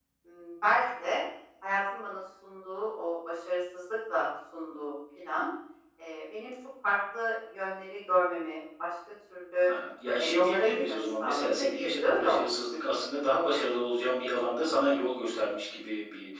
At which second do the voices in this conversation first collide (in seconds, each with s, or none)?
10.2 s